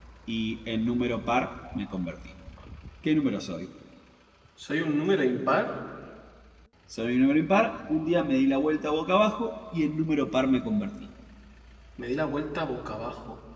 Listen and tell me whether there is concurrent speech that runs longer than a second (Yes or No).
No